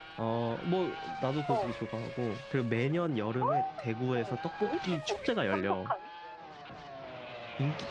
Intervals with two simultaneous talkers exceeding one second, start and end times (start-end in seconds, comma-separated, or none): 4.6-5.9